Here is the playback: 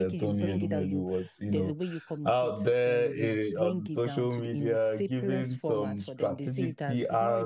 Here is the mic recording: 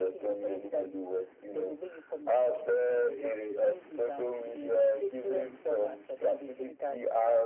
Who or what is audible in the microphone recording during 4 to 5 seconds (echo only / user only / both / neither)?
echo only